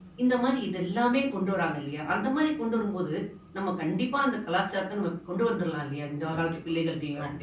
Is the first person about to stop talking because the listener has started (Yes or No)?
Yes